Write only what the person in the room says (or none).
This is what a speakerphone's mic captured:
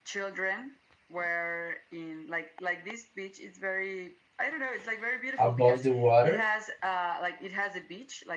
above the water